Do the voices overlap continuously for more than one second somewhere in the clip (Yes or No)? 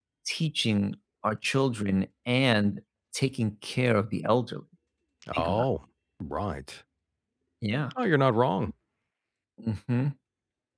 No